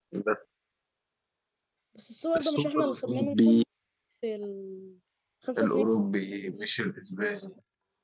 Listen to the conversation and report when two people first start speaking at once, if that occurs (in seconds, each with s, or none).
2.4 s